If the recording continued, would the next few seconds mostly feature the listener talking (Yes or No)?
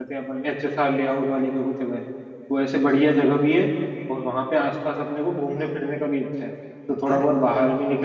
No